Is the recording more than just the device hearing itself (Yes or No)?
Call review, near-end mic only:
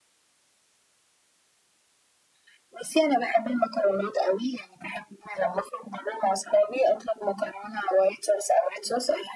No